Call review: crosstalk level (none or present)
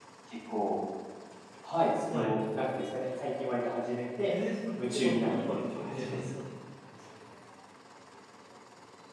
present